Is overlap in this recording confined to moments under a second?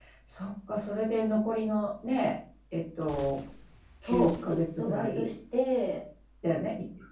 No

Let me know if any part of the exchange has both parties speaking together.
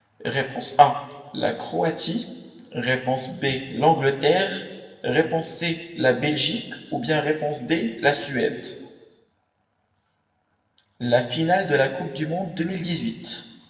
No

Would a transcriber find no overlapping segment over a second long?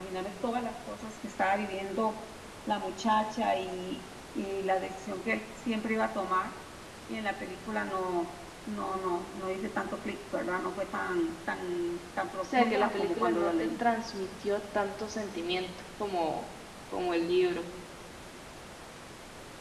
No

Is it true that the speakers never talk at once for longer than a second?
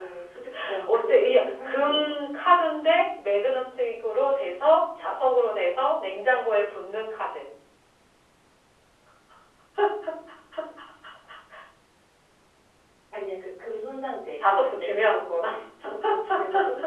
No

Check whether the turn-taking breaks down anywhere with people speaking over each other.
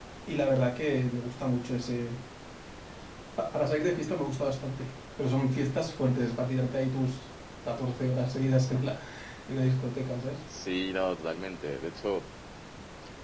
No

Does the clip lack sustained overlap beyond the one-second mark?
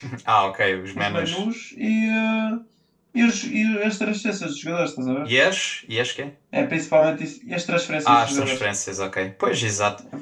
Yes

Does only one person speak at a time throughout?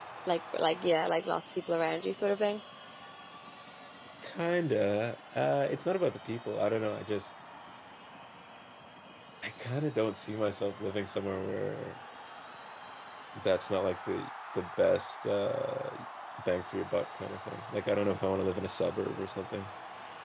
Yes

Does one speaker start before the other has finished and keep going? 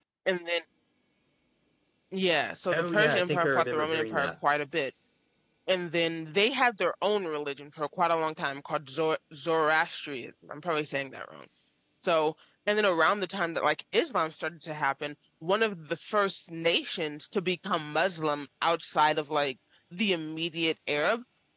Yes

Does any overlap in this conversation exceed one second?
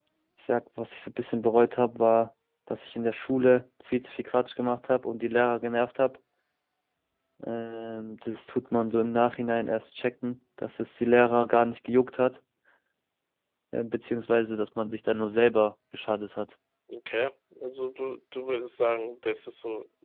No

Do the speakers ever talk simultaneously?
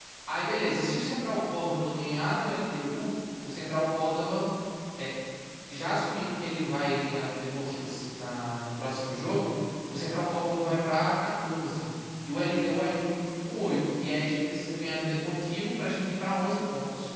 No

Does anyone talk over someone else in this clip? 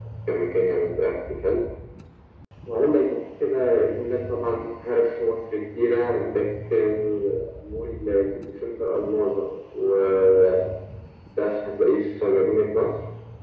No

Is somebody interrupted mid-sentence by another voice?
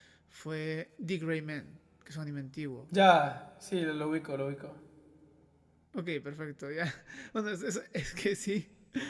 No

